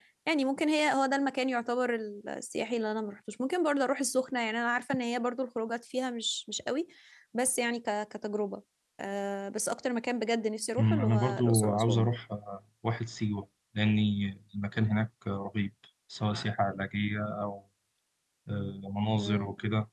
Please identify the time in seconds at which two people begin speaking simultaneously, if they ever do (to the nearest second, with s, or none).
11 s